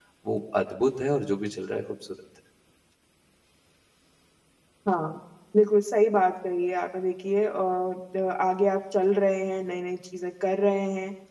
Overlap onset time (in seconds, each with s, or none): none